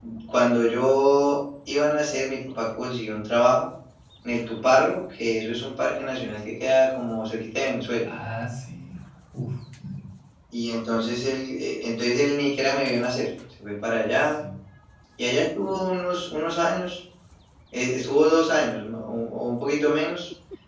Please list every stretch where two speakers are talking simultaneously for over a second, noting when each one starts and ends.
none

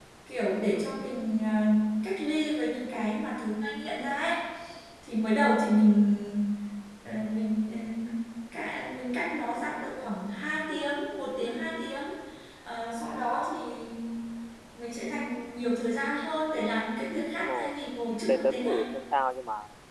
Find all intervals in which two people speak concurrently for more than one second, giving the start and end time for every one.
none

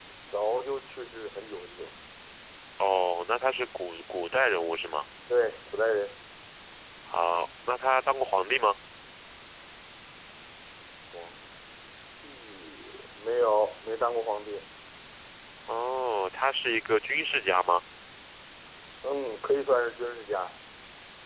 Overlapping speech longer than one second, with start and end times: none

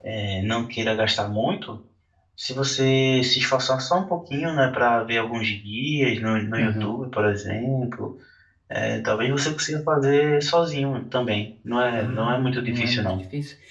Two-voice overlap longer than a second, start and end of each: 11.9-13.2

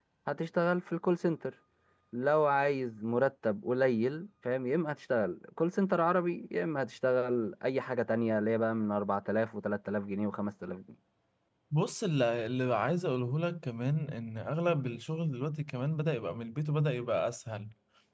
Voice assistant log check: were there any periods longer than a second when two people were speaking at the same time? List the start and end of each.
none

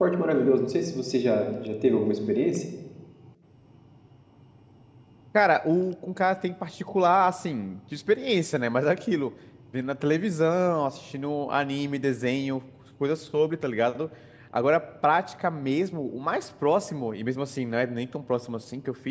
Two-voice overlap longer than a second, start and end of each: none

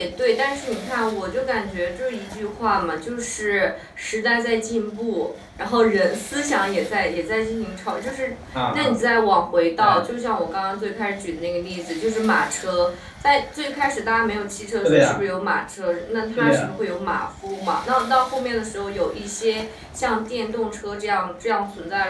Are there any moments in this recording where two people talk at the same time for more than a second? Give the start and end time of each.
none

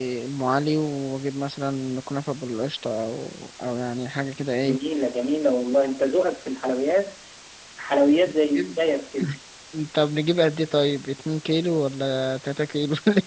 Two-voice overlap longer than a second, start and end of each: none

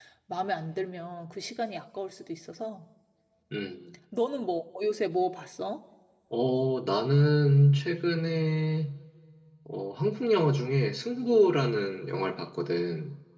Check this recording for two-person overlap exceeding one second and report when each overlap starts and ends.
none

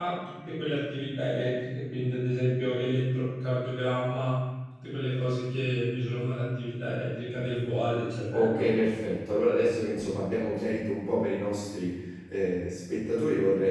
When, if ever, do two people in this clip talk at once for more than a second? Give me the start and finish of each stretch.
none

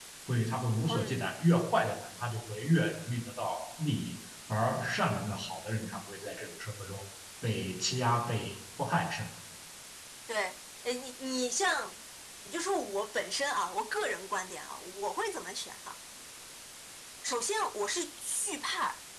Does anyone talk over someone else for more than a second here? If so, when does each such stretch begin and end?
none

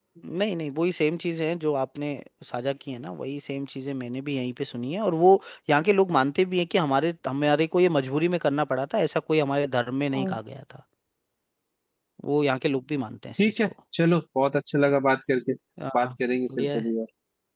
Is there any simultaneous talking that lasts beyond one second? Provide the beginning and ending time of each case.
none

